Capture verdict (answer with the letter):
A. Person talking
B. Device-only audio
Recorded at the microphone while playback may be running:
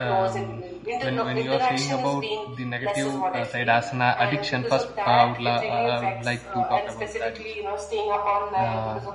A